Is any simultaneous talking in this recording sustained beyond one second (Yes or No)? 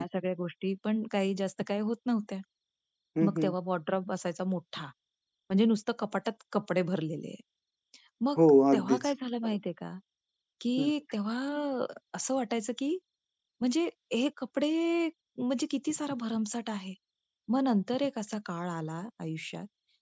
No